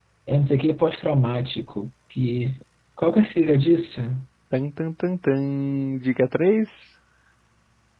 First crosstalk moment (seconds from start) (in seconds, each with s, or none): none